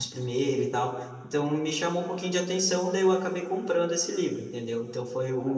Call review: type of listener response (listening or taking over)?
listening